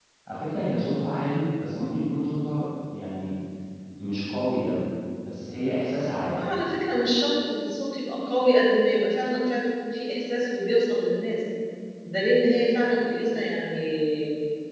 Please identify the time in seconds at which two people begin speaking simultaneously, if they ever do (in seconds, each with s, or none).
none